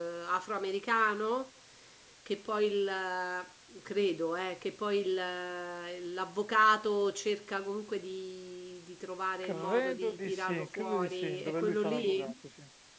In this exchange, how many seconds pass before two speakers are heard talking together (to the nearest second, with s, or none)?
9 s